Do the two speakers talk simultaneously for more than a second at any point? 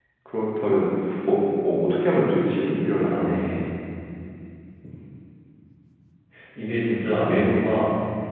No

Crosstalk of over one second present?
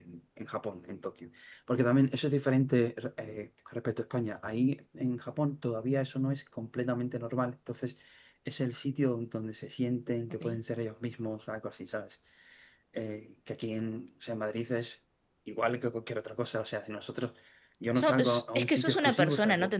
Yes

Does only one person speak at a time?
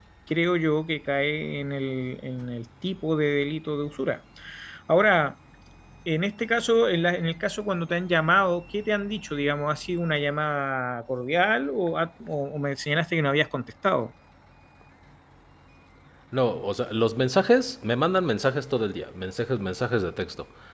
Yes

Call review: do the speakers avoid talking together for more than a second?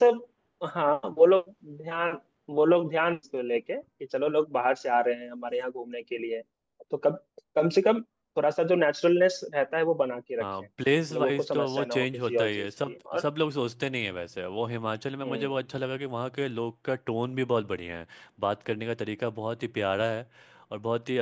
No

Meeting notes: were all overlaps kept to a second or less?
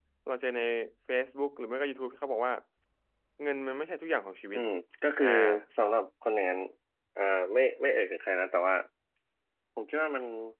Yes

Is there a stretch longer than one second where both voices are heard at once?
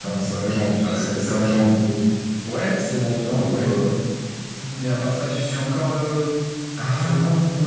No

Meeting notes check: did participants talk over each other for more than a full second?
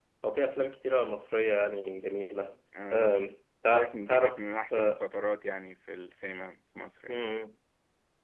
Yes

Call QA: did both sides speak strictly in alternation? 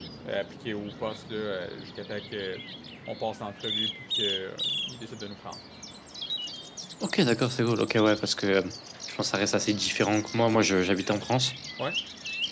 Yes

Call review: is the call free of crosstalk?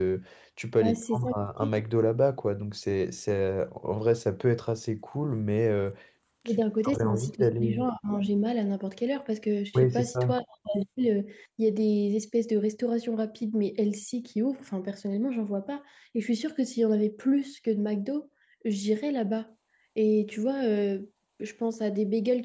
No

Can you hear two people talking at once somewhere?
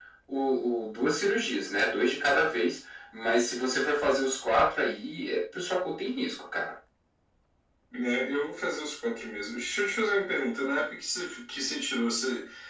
No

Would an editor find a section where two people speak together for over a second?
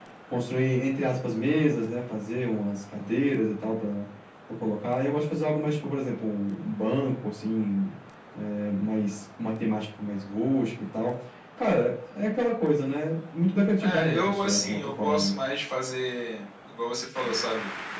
Yes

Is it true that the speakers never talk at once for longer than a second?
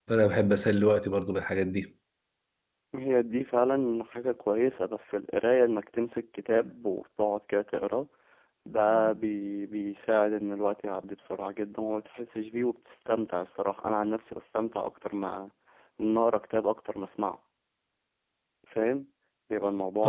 Yes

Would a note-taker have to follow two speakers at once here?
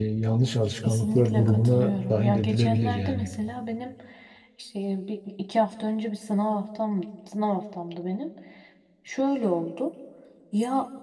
Yes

